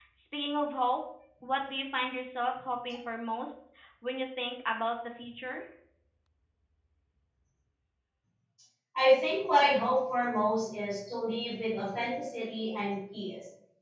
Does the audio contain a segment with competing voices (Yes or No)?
No